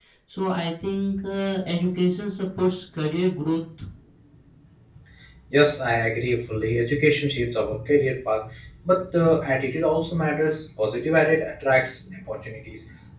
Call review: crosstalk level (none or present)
none